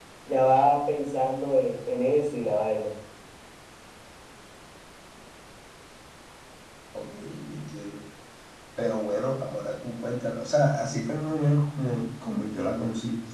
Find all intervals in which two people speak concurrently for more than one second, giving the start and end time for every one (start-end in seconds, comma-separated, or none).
none